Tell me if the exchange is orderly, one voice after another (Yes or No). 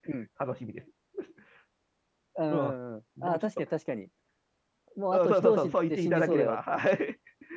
No